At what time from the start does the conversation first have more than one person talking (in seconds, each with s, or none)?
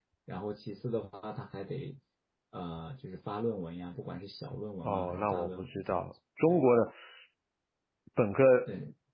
4.8 s